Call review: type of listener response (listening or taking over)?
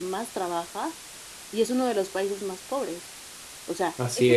listening